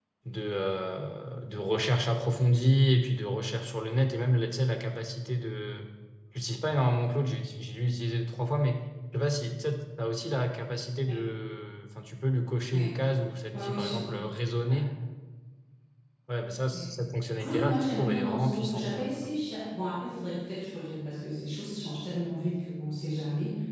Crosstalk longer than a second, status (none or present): present